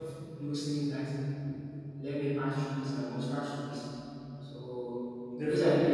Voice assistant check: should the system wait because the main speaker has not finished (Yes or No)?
Yes